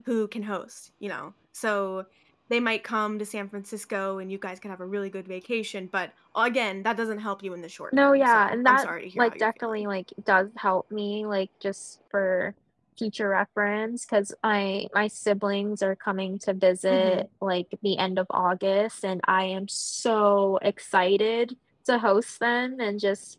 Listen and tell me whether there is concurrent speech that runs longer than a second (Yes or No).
Yes